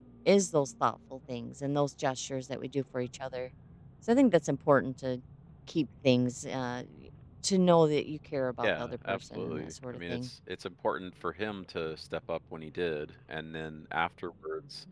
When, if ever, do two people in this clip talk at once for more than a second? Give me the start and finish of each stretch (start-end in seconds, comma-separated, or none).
8.6-10.3